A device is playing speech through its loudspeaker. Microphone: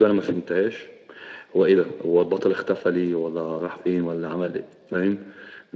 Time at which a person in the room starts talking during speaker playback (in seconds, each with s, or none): none